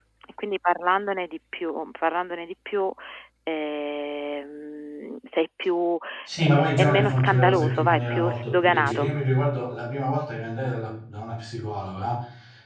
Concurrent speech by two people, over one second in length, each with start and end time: 6.4-9.1

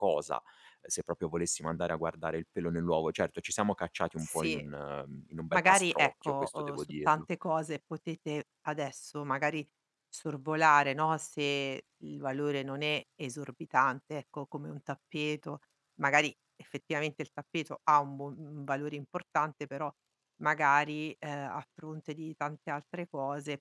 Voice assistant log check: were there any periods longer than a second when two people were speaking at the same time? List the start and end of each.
5.5-7.2

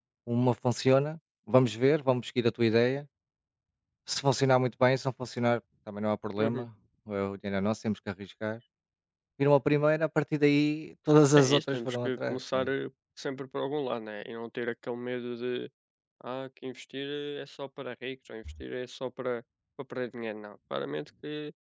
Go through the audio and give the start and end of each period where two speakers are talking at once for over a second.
11.4-12.7

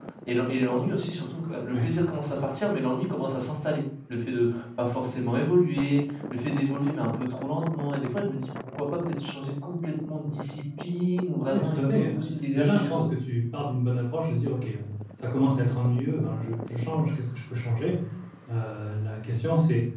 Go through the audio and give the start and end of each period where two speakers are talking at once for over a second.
11.5-13.0

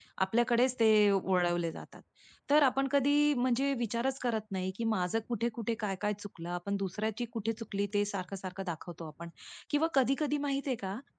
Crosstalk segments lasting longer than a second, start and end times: none

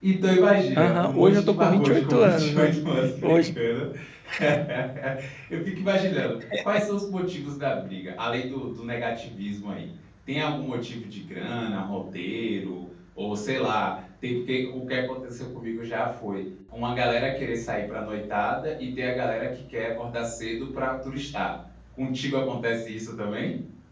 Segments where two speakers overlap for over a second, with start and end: 0.8-2.8

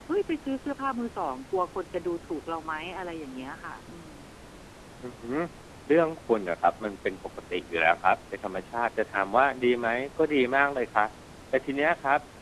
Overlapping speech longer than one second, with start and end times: none

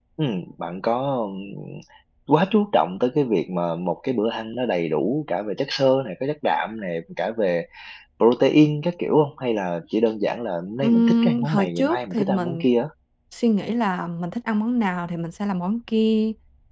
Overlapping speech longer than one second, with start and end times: 10.8-12.6

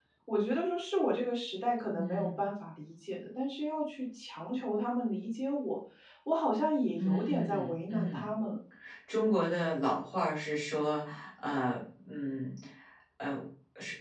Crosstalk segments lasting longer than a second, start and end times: 7.0-8.3

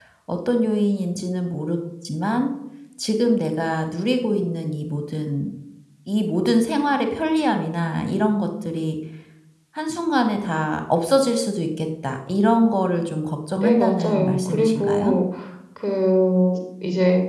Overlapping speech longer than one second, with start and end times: 13.6-15.2

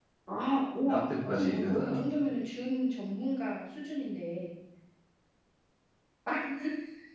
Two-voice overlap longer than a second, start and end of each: 0.8-2.4

